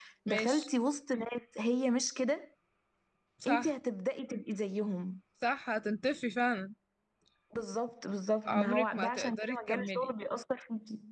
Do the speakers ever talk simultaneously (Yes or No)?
Yes